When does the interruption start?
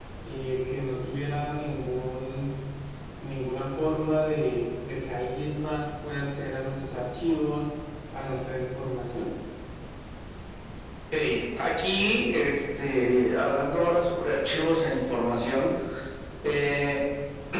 none

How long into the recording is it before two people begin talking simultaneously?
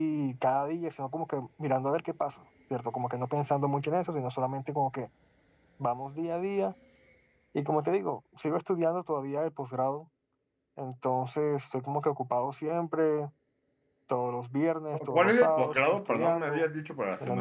14.9 s

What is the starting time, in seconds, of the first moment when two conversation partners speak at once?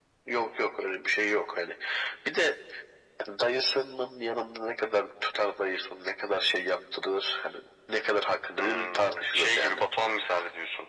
8.6 s

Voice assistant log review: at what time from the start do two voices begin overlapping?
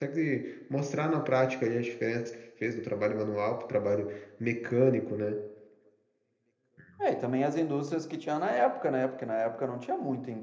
none

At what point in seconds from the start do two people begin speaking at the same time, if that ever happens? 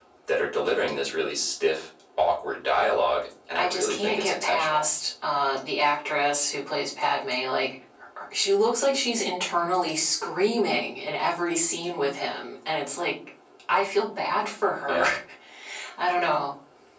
3.6 s

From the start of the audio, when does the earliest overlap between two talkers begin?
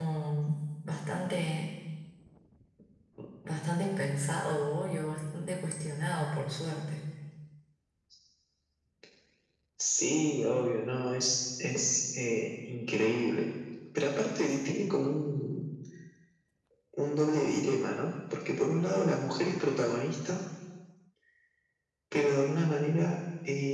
none

